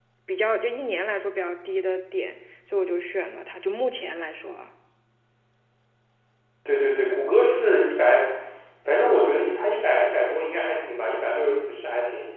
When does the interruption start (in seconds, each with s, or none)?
none